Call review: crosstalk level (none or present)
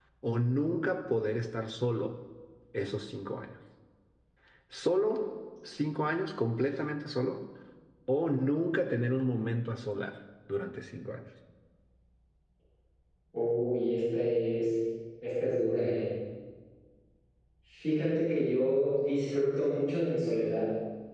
none